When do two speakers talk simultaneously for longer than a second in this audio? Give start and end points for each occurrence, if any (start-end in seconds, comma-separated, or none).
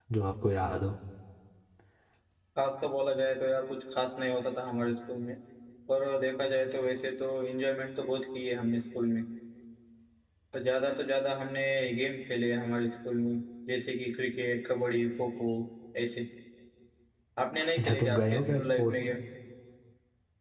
17.8-19.0